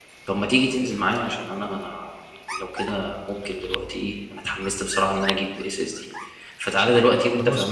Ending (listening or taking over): listening